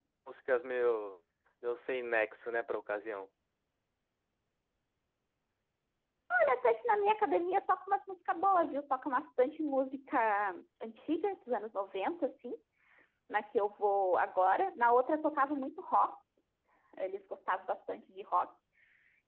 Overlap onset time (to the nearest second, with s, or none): none